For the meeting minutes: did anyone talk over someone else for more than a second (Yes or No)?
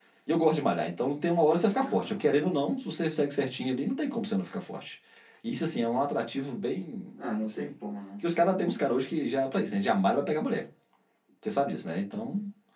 No